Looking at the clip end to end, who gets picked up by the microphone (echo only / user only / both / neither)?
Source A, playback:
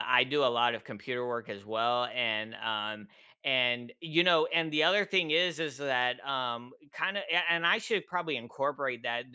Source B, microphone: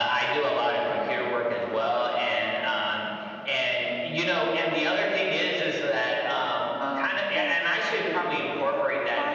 both